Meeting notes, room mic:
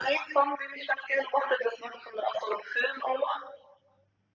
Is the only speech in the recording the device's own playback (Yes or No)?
Yes